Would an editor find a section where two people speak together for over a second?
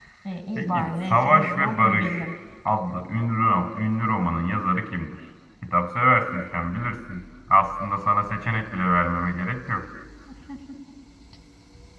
Yes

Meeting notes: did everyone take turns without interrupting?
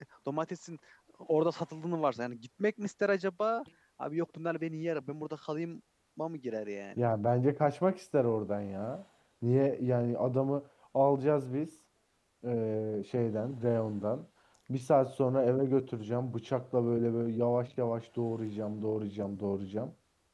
Yes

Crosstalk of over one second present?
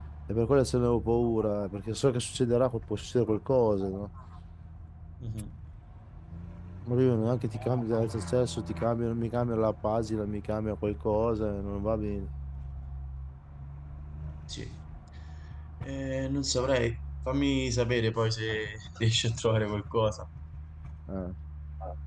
No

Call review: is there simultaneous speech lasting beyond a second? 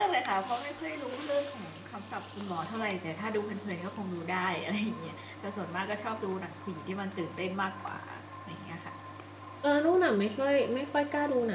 No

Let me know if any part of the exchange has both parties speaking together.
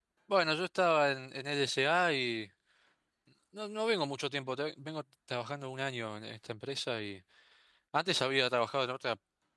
No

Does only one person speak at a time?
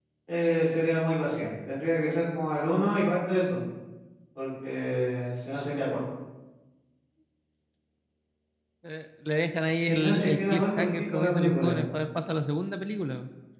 No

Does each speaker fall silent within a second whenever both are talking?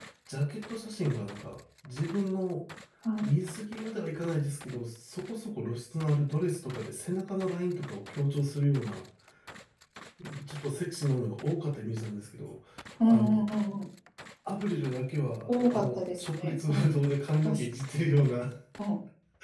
No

